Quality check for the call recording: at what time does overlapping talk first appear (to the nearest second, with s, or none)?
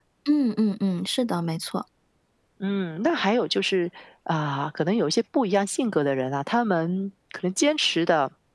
none